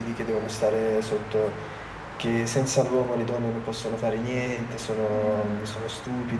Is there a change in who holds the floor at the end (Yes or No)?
No